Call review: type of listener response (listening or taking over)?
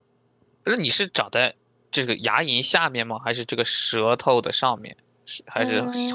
taking over